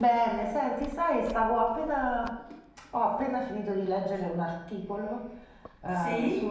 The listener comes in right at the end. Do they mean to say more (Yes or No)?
No